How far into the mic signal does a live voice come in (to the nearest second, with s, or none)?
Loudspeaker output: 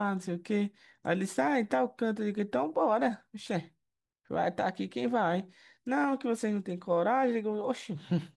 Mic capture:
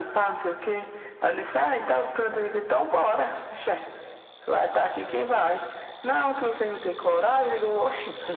none